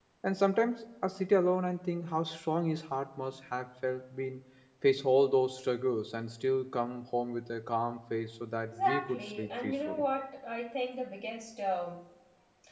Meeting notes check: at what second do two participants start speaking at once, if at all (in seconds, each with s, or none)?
8.7 s